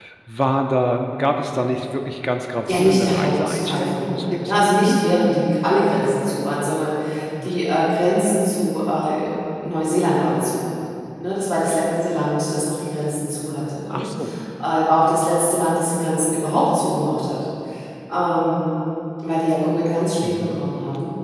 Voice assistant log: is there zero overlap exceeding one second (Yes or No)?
No